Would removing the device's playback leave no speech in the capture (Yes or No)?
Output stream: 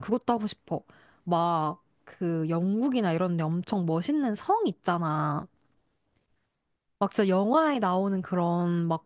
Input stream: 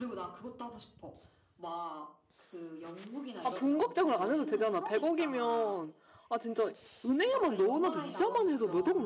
No